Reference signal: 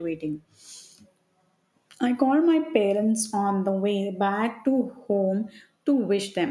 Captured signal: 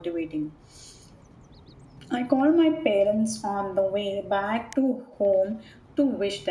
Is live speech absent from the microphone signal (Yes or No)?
Yes